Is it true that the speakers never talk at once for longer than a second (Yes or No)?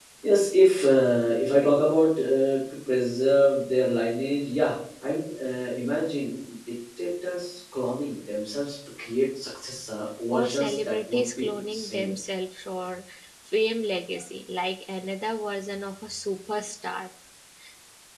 No